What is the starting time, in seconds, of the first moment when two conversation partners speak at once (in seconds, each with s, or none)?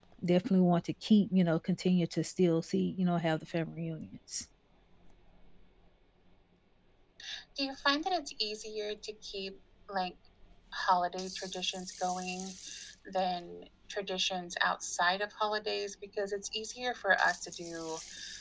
none